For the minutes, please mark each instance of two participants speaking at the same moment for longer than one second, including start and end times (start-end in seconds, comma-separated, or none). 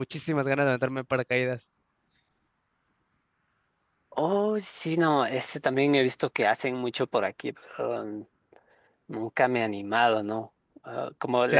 none